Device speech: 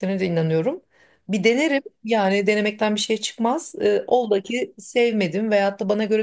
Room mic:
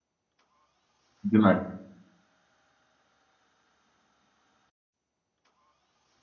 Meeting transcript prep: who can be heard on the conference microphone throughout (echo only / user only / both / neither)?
user only